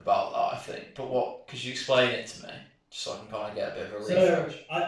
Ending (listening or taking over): taking over